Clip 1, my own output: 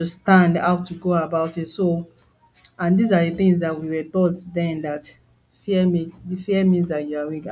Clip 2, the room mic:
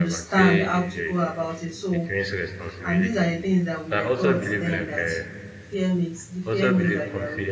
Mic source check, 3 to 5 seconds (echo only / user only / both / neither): both